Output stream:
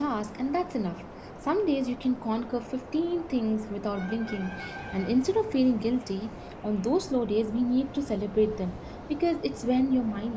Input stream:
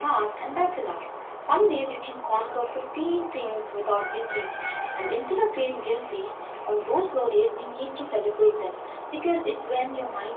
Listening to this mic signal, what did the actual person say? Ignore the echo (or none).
none